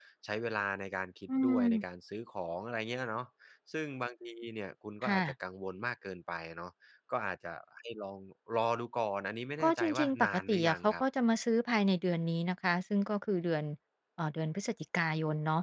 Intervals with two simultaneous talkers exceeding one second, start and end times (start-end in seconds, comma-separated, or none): 9.6-11.0